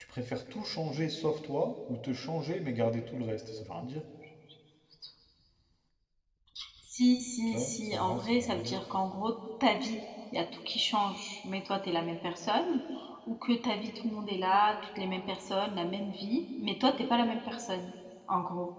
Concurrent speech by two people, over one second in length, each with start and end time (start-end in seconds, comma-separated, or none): 7.5-8.8